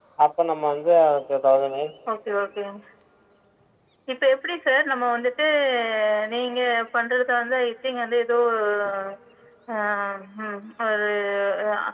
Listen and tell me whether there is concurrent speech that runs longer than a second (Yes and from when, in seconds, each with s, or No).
No